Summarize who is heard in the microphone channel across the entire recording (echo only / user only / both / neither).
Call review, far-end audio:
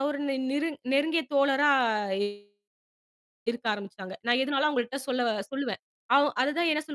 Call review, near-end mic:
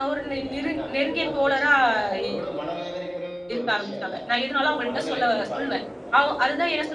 both